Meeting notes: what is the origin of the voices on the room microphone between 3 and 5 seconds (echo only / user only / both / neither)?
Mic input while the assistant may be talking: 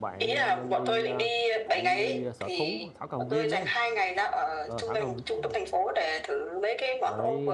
both